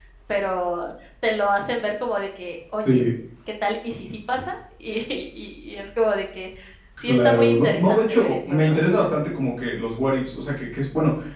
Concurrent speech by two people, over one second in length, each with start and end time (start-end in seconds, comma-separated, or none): 7.0-8.8